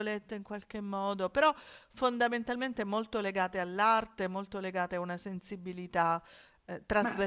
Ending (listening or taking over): taking over